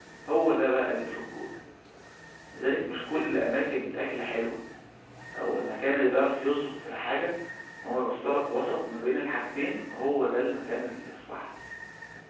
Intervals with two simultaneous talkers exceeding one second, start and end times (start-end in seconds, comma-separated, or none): none